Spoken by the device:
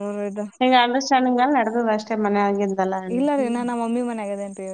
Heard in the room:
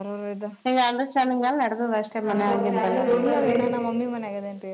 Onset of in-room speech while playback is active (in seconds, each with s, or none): 2.3 s